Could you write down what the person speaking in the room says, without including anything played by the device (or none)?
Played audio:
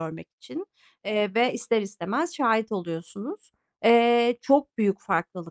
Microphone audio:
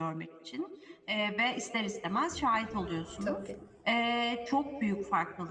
Tabii.